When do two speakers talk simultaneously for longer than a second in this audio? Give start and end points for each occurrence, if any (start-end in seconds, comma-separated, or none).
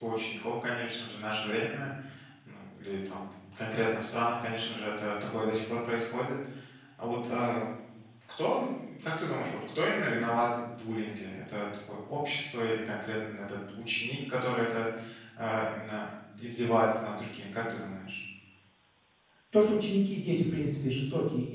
none